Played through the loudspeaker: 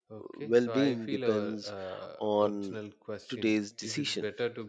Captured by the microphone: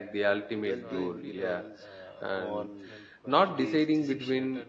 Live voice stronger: Yes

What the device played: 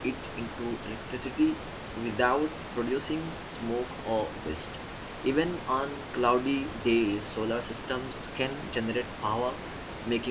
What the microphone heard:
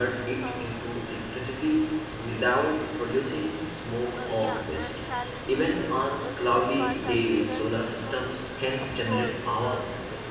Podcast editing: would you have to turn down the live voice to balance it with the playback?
No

